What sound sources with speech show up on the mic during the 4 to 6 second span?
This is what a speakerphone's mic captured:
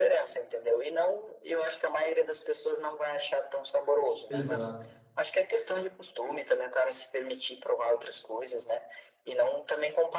both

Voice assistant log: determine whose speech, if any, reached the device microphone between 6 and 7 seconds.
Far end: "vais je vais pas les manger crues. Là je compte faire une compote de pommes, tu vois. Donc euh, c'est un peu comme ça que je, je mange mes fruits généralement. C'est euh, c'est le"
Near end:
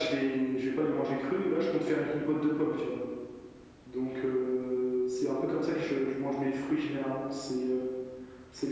echo only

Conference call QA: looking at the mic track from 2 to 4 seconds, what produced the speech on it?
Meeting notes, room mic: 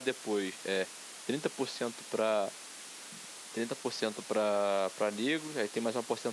user only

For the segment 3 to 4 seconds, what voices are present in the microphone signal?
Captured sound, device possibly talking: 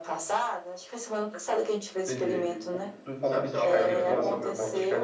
both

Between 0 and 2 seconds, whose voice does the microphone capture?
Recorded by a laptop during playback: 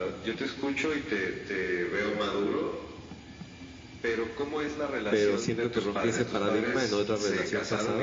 echo only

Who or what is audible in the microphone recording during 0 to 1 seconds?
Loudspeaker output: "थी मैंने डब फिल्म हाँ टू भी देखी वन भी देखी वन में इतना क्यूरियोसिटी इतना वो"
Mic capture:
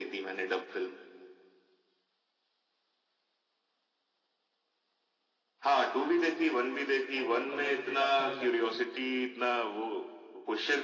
echo only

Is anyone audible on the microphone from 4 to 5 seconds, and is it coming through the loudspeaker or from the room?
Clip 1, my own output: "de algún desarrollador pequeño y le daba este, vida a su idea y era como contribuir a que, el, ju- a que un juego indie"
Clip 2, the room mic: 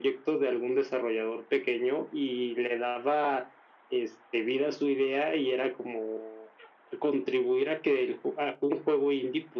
echo only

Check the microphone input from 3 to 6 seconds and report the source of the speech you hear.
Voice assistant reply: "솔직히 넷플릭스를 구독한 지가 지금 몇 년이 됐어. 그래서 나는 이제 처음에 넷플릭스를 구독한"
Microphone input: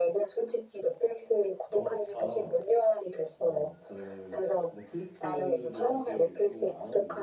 both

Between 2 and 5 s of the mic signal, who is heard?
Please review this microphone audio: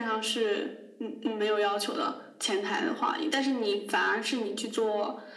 echo only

